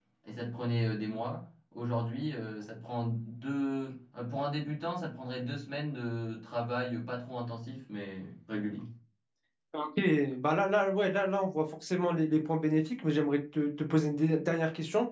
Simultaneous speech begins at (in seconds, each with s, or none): none